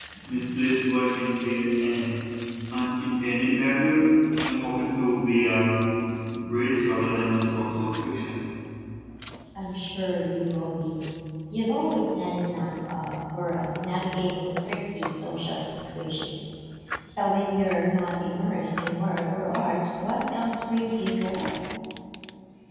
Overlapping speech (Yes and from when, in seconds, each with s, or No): No